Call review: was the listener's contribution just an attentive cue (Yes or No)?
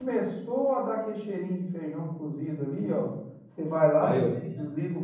Yes